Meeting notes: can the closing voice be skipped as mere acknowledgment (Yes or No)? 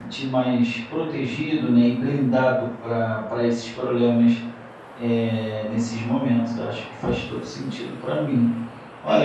No